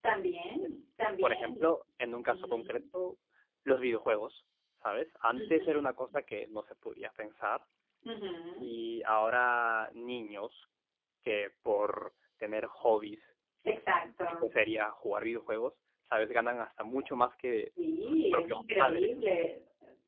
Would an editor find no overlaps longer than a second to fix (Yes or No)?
No